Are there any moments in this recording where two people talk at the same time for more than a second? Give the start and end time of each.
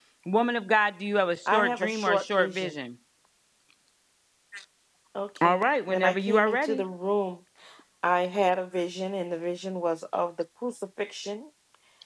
1.5-2.8, 5.4-6.8

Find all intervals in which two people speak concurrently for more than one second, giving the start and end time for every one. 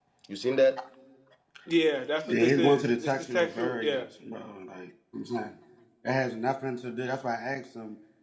2.3-4.0

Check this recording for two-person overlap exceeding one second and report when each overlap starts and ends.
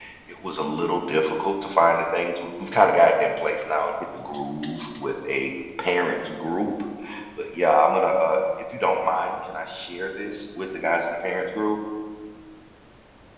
none

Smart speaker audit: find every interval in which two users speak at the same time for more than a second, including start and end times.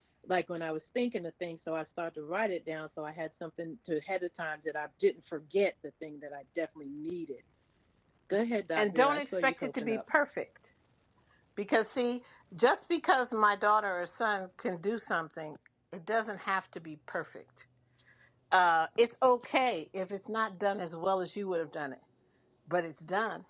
8.8-10.0

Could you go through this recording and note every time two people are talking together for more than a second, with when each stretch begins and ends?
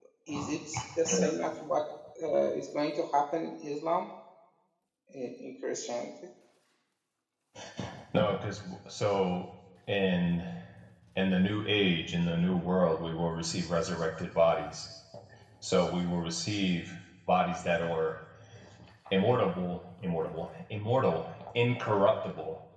none

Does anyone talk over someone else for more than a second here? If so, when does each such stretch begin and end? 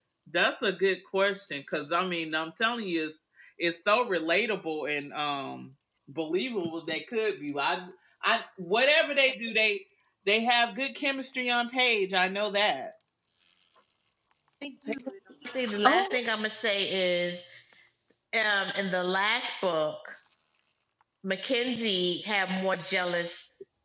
none

